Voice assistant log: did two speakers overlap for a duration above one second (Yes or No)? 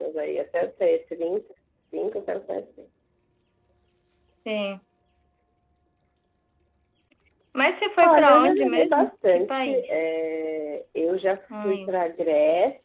Yes